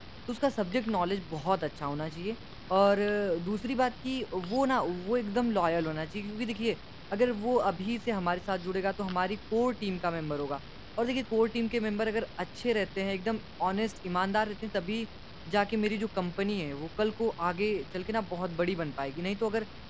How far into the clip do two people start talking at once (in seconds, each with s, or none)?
none